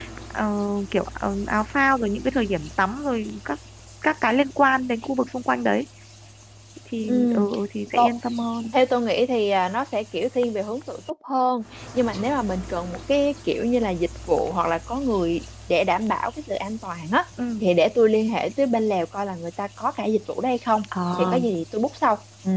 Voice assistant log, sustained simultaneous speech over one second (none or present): none